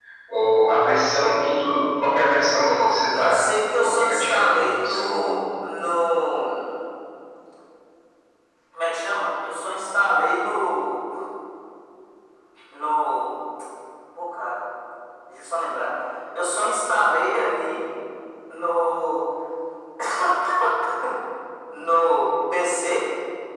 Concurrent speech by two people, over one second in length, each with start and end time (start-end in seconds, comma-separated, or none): 2.8-5.4